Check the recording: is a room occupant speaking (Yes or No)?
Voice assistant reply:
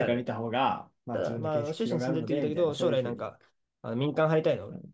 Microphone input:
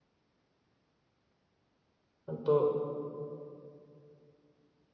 Yes